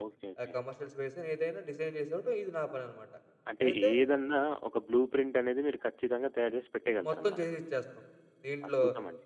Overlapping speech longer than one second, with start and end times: none

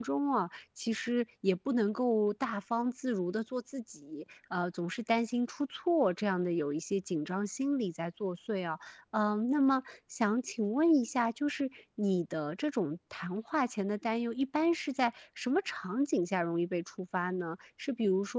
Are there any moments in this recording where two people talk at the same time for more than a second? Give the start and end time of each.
none

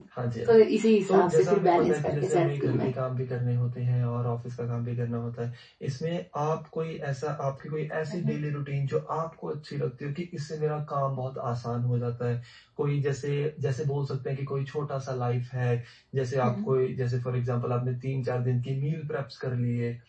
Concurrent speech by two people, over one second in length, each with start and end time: 1.1-2.9

